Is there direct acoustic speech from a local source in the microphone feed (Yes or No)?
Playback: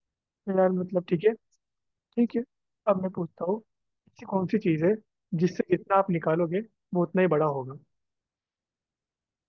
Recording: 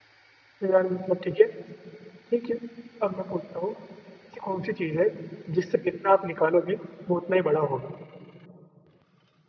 No